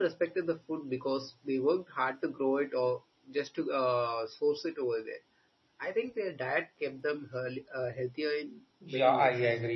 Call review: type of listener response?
taking over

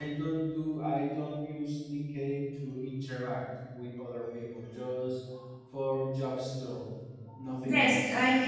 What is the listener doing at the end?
taking over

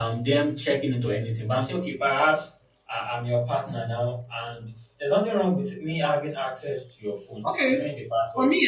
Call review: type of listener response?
taking over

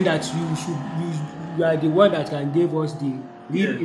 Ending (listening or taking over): taking over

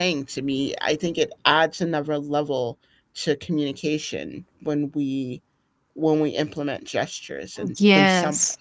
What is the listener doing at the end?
taking over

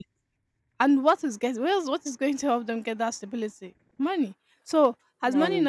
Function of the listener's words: listening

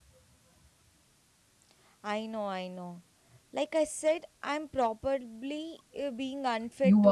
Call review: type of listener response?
taking over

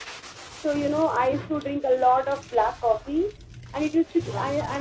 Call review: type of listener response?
listening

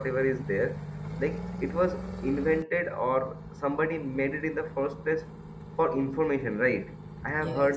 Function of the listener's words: listening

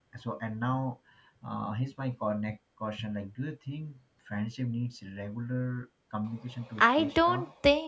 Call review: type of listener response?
taking over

